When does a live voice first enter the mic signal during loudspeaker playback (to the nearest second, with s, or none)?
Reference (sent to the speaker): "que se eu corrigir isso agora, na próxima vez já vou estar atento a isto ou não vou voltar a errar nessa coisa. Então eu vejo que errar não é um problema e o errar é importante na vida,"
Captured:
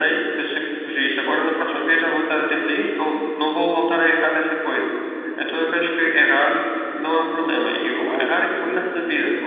8 s